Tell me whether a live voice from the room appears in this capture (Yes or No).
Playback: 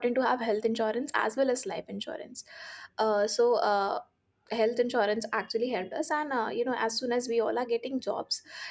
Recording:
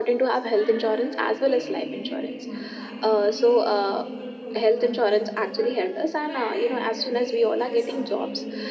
Yes